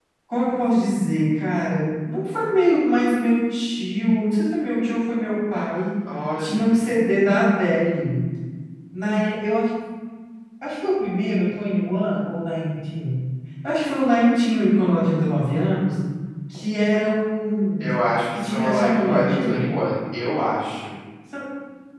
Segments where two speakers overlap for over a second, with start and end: 18.3-19.6

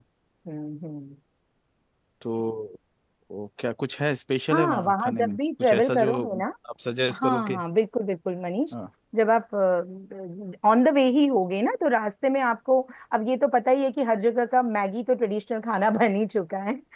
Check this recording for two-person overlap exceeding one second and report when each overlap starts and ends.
4.5-6.3

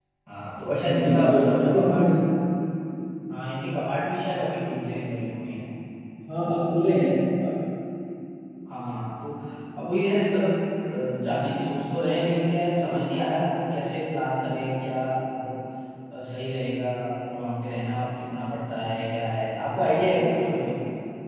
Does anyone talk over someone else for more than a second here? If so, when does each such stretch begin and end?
0.9-2.1

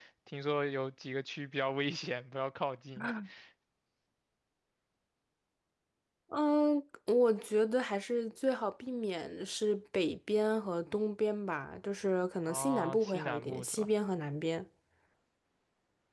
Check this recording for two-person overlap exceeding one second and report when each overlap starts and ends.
12.4-13.9

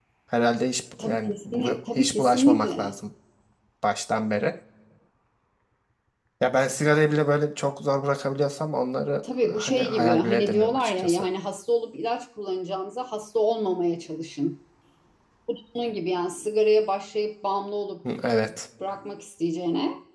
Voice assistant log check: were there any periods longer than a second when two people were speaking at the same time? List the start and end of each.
1.0-2.8, 9.4-11.3

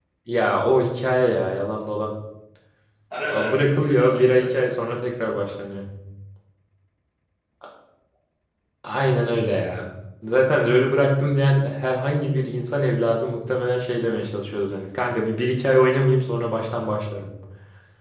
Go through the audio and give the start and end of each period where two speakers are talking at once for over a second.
3.2-4.7

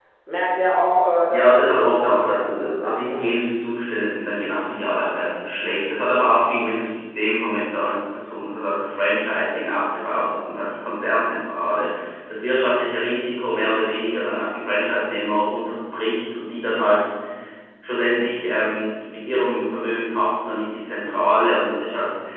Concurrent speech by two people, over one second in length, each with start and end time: 1.3-3.2

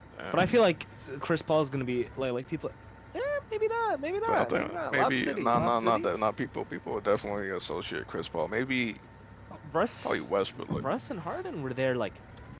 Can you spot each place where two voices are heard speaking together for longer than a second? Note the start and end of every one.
4.3-6.1

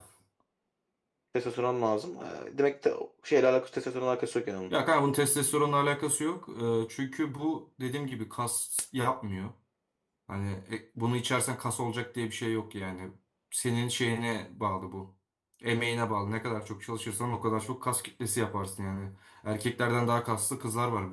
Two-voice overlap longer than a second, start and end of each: none

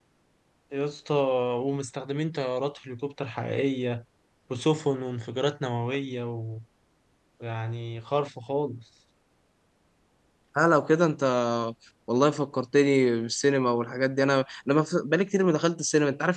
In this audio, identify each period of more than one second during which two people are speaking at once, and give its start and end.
none

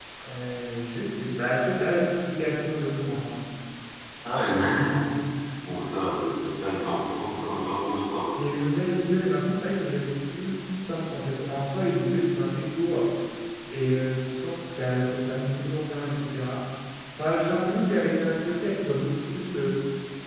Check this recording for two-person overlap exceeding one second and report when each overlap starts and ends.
none

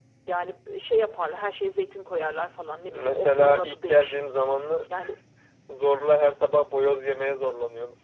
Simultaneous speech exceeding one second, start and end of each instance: 2.8-4.2

